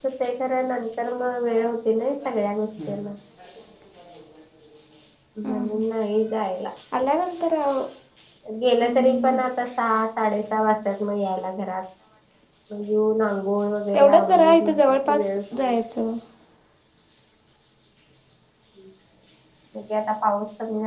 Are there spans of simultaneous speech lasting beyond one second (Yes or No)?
Yes